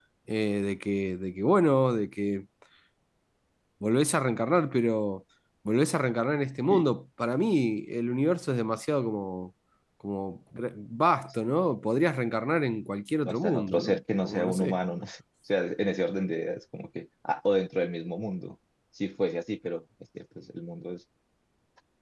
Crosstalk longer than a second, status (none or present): present